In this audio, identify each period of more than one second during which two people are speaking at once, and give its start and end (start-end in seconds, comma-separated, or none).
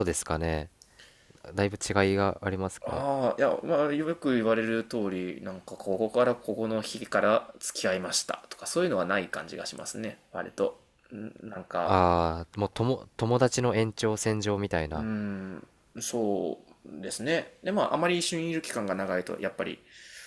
none